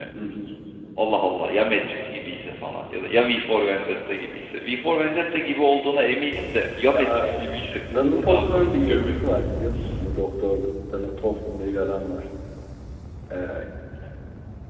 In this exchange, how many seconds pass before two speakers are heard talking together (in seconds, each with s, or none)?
6.9 s